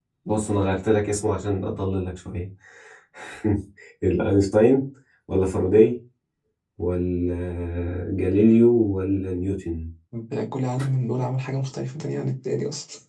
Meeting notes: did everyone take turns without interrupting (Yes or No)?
Yes